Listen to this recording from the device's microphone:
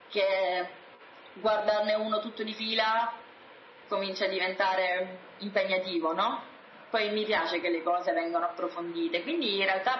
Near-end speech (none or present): none